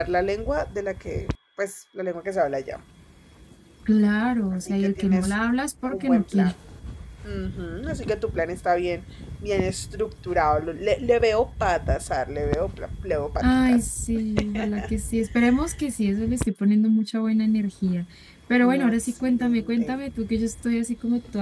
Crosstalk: present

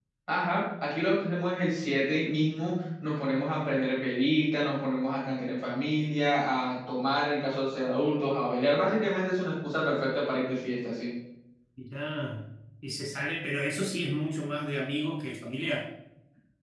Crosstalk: none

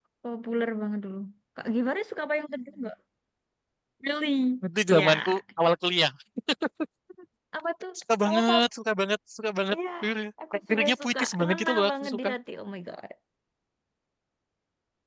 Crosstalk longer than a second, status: present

